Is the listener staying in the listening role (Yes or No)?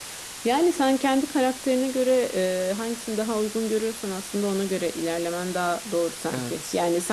Yes